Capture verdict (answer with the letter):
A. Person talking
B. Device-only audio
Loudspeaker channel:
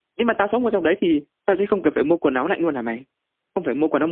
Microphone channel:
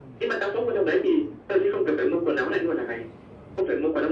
B